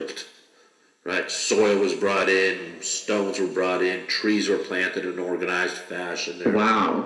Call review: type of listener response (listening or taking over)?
taking over